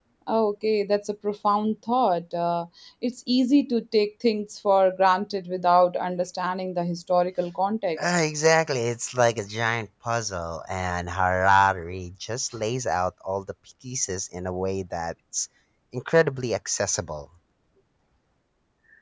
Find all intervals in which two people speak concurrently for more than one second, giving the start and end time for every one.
none

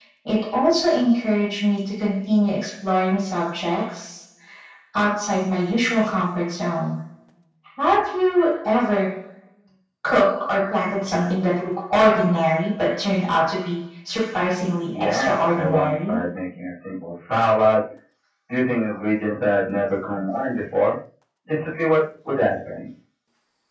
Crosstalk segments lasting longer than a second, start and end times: 14.9-16.2

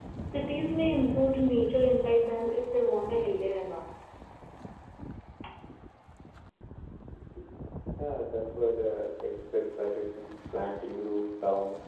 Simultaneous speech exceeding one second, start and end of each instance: none

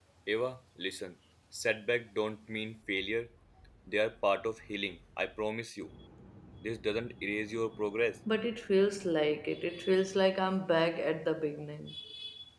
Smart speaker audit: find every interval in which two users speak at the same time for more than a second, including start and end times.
none

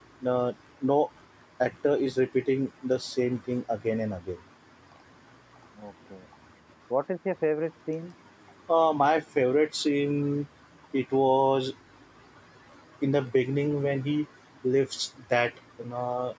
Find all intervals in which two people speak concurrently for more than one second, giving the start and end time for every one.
none

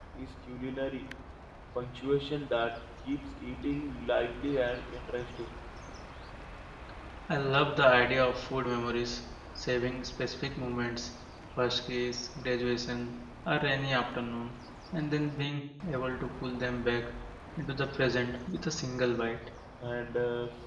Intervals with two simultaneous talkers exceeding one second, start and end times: none

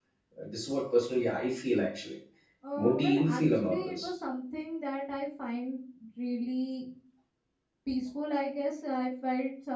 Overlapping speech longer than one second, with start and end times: 2.8-4.1

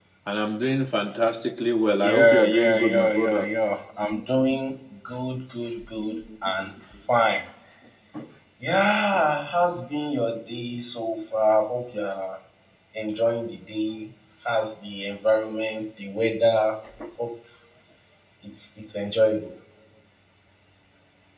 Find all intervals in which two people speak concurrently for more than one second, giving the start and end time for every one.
2.0-3.5

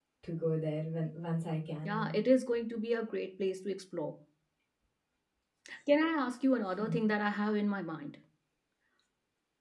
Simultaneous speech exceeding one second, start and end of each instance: none

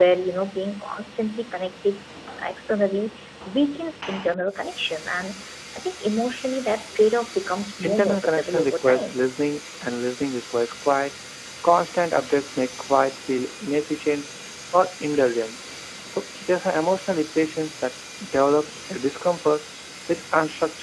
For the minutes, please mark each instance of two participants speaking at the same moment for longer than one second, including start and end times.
7.8-9.2

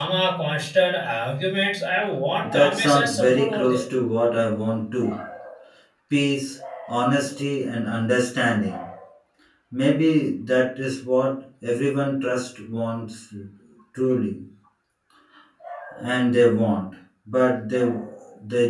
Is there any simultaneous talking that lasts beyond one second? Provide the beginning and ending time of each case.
2.4-3.8

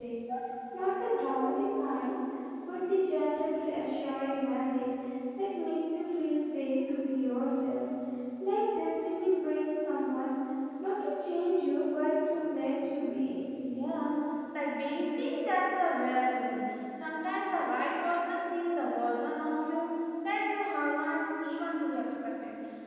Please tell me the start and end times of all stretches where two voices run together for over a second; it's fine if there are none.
none

